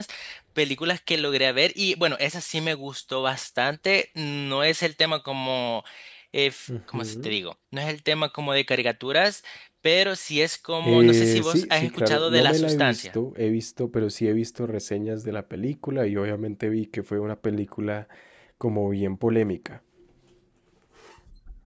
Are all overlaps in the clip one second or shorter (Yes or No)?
No